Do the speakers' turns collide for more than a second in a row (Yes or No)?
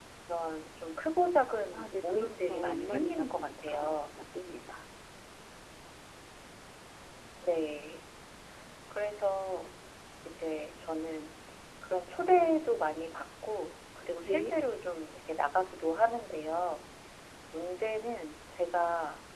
Yes